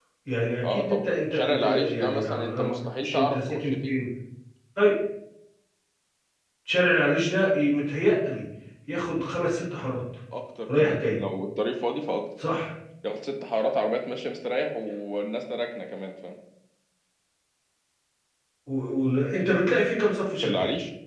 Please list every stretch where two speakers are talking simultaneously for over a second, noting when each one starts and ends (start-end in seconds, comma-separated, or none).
0.7-4.0